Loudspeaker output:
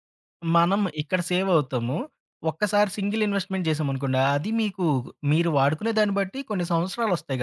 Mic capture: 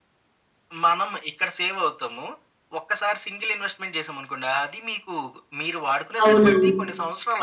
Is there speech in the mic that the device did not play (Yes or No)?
Yes